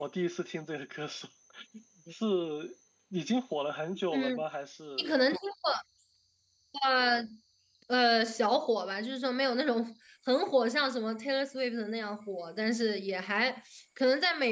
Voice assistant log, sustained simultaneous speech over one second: none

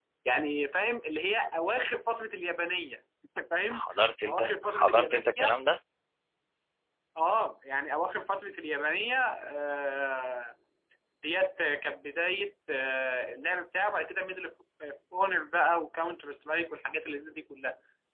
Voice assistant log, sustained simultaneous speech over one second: present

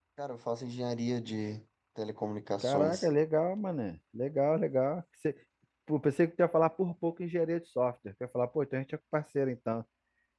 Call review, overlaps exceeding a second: none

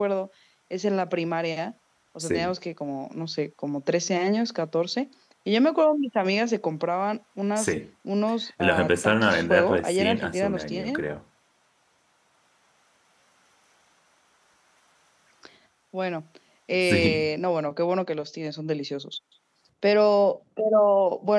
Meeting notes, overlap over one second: present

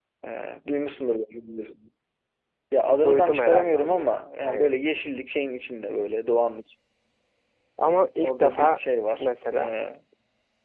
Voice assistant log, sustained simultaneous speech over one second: present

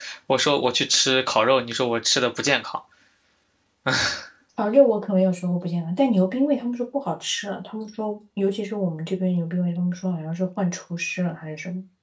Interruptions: none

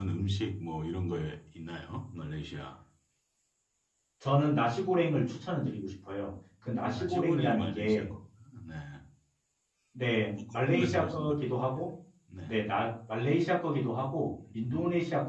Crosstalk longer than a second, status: present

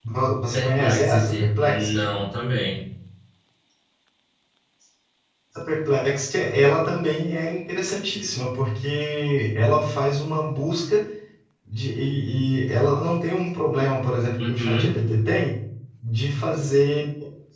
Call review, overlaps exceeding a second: present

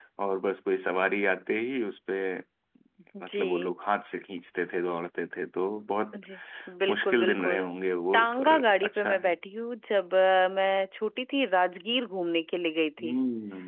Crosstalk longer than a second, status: present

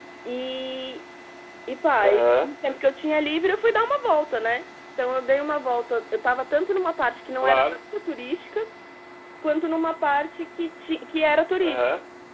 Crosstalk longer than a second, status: none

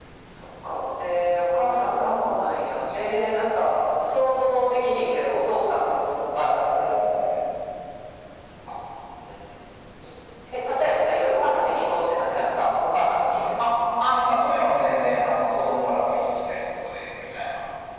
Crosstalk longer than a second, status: none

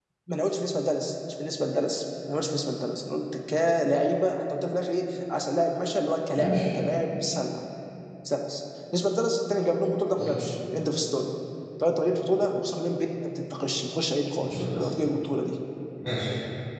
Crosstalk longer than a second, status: none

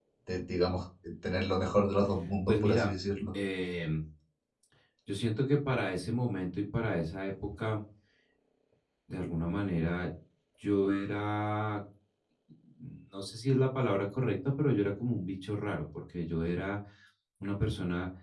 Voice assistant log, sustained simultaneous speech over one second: none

